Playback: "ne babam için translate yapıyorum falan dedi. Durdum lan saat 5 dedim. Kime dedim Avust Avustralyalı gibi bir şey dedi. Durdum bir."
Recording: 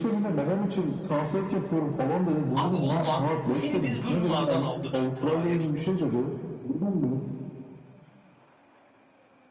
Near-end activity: present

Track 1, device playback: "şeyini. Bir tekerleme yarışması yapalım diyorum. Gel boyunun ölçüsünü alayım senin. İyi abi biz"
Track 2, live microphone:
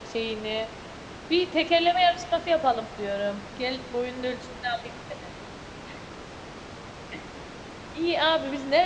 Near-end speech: none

